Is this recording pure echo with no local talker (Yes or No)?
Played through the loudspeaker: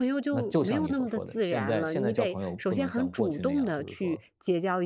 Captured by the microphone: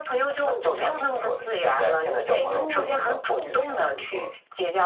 No